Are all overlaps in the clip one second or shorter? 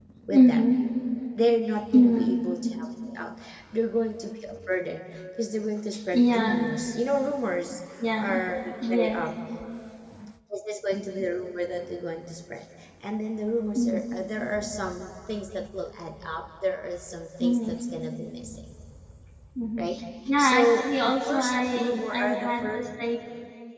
No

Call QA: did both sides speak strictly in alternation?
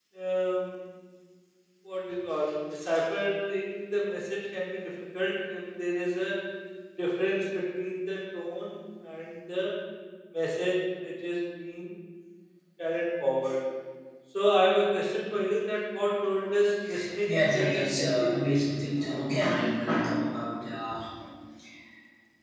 No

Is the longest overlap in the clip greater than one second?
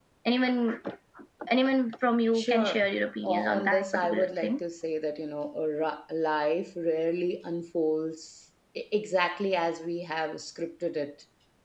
Yes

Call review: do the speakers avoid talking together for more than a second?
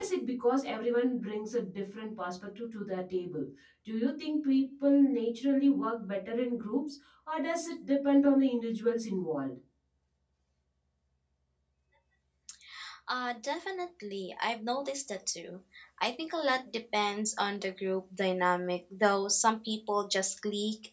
Yes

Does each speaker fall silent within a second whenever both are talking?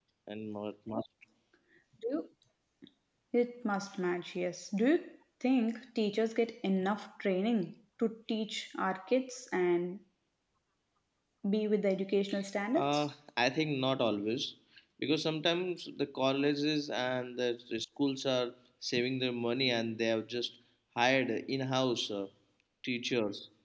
Yes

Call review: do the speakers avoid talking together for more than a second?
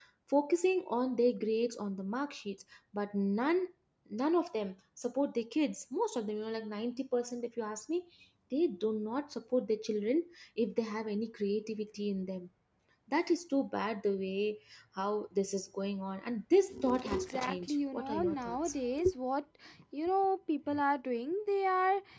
No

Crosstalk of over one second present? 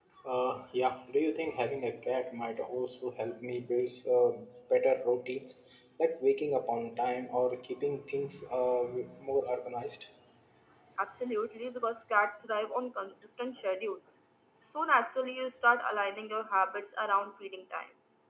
No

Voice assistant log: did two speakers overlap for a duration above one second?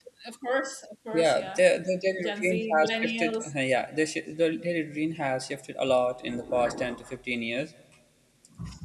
Yes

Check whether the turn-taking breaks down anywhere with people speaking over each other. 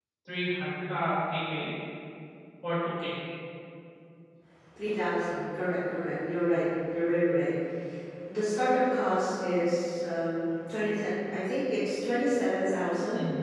No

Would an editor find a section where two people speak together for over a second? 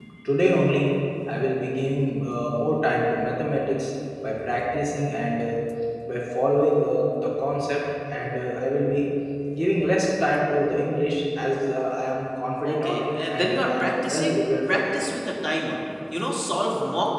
Yes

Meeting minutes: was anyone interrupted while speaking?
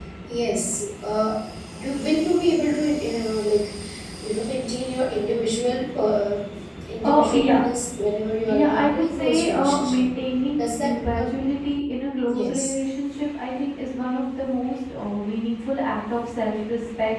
Yes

